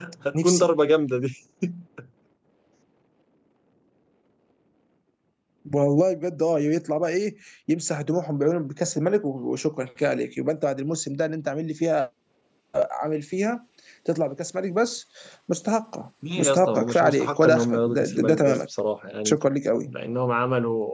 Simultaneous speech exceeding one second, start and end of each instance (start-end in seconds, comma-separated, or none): 16.4-18.6